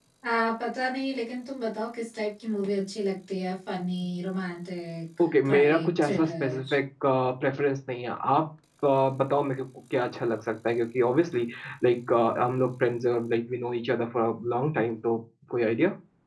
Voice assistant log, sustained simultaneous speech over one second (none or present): present